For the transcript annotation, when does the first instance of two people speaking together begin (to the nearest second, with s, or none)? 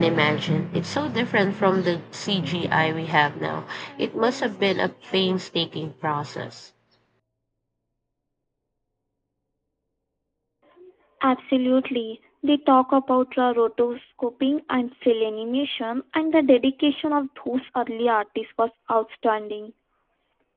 none